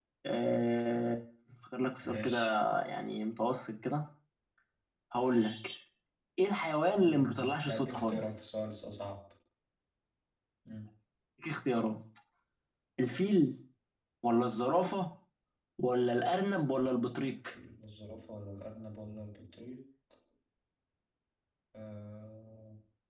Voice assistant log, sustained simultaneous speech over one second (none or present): present